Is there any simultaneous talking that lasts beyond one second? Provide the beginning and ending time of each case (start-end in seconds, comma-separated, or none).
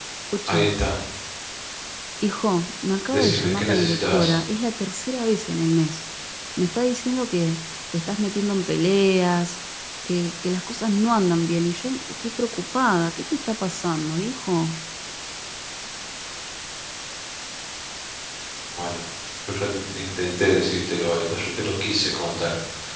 3.1-4.3